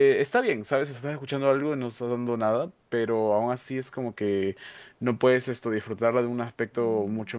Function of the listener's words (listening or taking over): listening